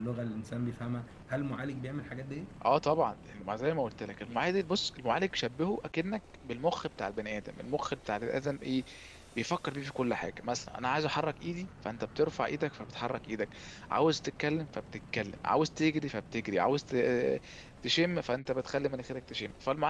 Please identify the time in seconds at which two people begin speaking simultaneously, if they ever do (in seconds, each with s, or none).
none